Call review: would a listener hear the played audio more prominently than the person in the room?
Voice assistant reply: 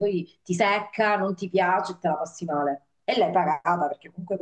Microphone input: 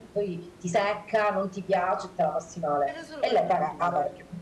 Yes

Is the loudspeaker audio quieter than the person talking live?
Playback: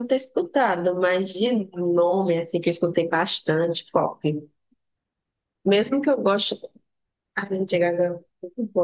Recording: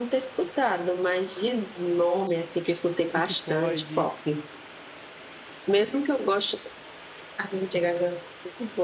No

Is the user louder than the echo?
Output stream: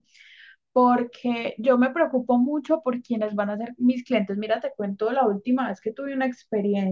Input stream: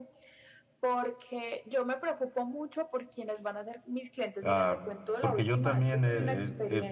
Yes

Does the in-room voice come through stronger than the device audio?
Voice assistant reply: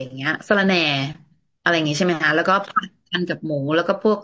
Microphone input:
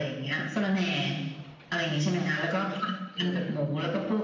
No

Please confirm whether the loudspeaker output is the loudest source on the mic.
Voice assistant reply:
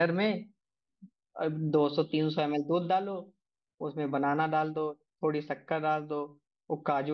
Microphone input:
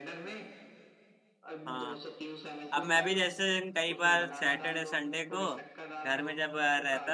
No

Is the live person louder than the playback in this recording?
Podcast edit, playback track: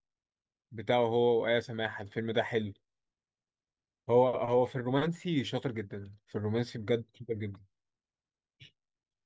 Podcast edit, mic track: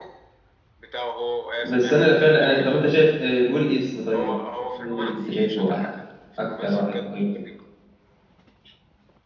Yes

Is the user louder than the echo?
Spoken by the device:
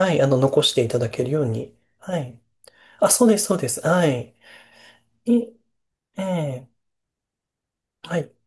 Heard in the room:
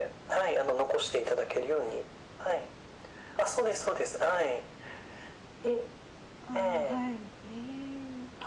No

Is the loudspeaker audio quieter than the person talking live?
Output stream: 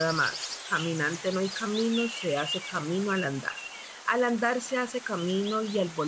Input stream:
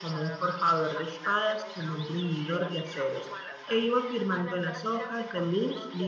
Yes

